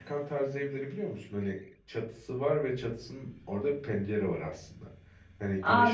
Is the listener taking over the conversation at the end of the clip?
Yes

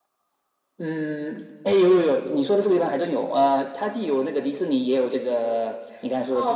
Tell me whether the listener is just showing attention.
No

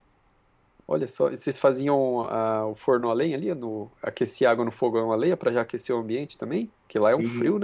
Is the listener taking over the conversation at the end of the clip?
Yes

